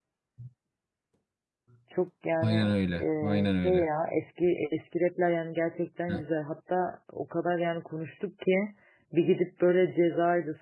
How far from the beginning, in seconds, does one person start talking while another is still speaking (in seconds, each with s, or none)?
2.4 s